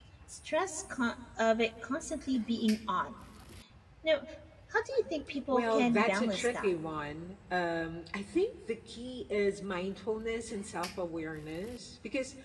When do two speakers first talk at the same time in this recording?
6 s

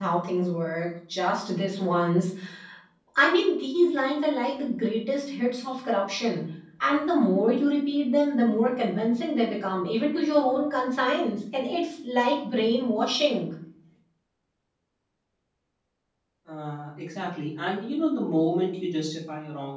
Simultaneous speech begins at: none

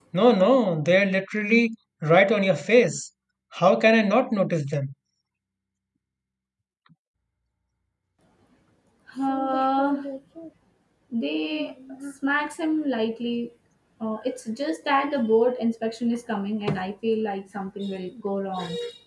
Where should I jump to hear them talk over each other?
none

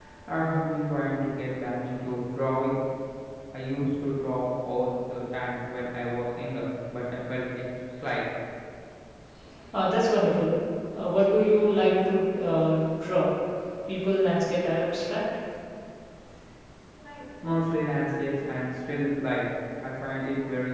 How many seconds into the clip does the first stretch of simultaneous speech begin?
none

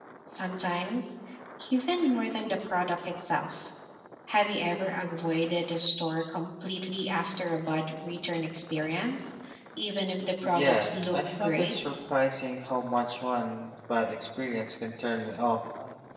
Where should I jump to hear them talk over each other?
10 s

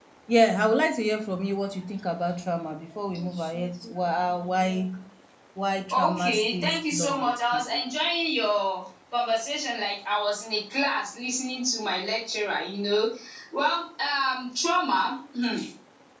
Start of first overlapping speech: 6 s

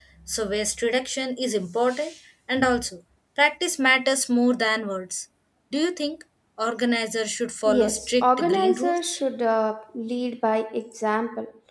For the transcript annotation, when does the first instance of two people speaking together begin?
8 s

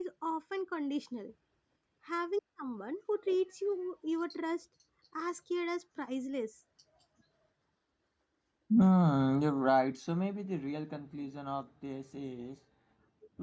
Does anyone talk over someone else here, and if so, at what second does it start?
none

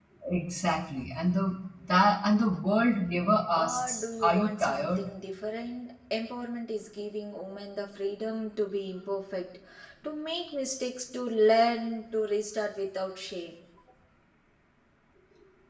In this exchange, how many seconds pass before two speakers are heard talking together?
4 s

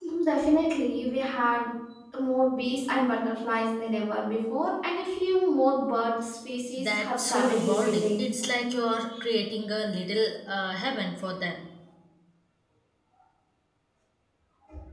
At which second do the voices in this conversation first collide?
7 s

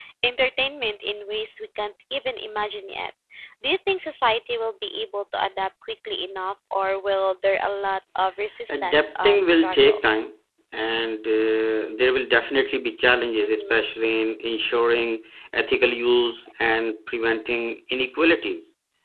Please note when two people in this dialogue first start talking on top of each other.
9 s

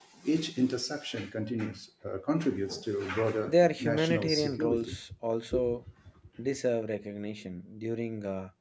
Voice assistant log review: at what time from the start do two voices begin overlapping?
3 s

